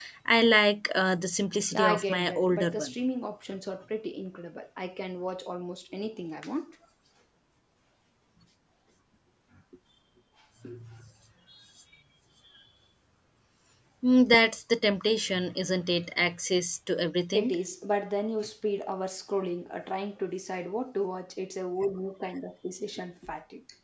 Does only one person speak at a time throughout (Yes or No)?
No